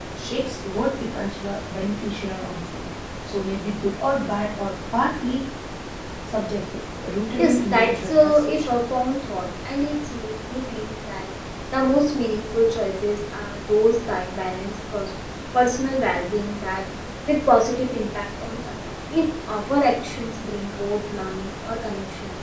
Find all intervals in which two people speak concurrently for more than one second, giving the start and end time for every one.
7.4-8.7

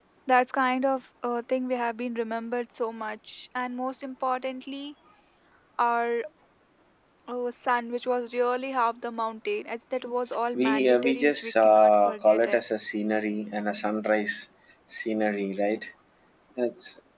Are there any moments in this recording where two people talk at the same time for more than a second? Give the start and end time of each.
10.6-12.6

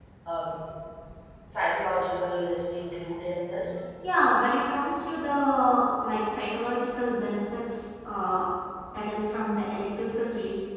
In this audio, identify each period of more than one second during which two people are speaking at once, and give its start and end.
none

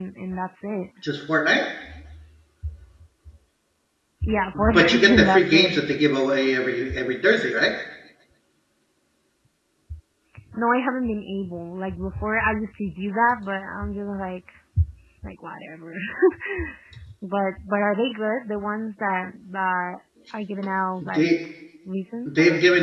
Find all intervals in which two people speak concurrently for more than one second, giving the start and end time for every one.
4.5-5.8

